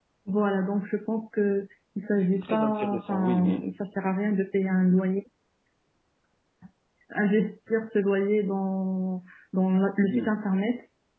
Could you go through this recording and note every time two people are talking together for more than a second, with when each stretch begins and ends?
2.3-3.6

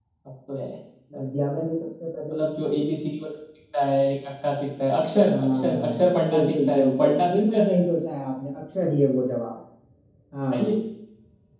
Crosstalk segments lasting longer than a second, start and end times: 5.3-7.8

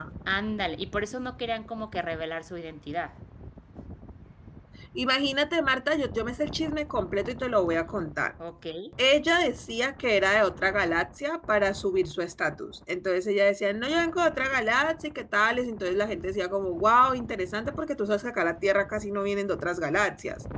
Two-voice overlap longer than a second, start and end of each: none

